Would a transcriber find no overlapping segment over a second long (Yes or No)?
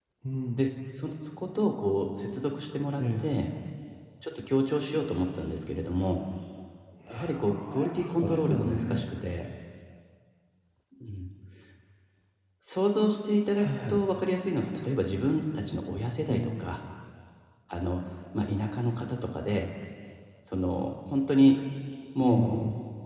No